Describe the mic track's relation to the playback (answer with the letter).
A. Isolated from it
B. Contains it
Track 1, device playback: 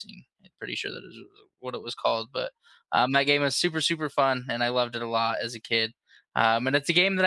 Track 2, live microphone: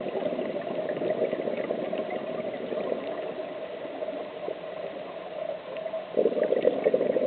A